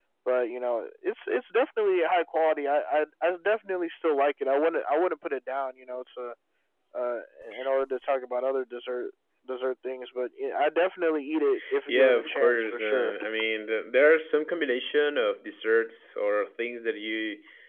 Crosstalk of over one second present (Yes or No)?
Yes